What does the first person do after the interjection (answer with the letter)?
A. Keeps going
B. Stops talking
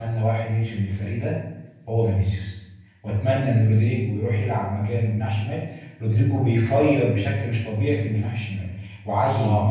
A